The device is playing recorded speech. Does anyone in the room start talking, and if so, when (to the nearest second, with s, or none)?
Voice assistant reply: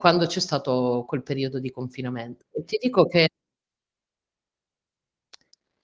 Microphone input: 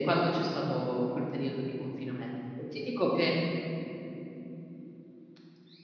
none